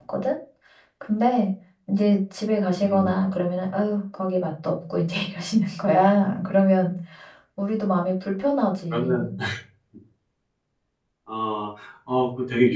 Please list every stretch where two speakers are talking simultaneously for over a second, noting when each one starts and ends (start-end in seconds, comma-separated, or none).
none